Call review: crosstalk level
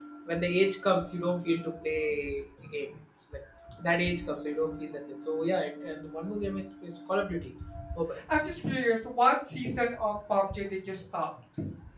none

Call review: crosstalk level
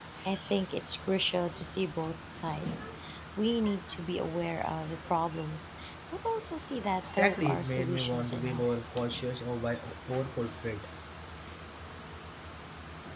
present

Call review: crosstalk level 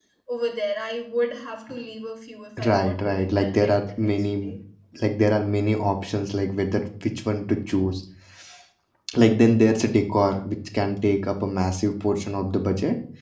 present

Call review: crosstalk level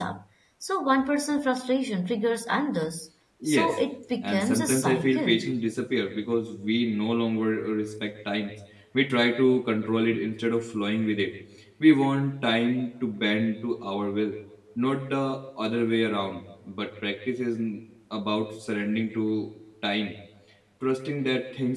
present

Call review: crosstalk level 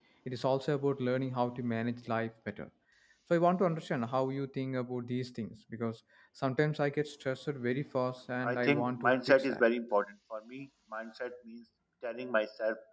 present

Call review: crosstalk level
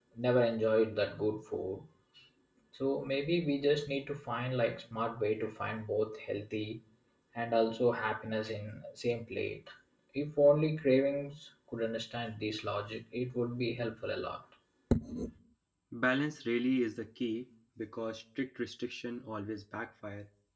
none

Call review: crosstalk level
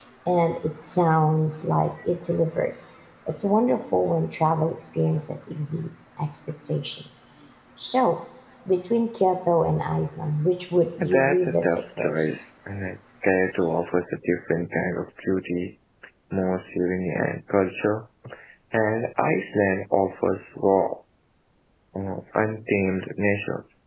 present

